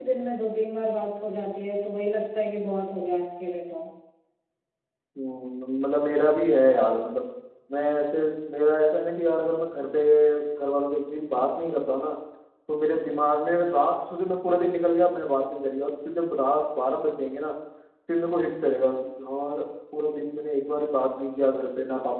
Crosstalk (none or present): none